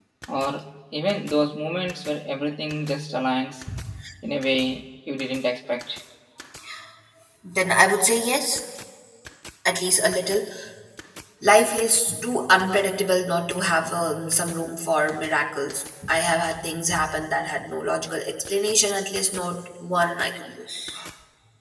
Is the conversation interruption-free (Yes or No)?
Yes